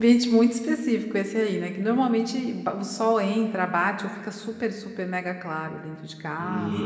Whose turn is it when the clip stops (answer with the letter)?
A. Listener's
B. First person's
A